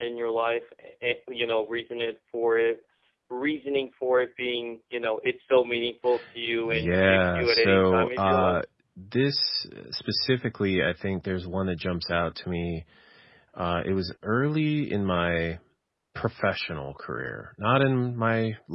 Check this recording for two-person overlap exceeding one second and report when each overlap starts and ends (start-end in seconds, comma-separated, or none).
6.6-8.6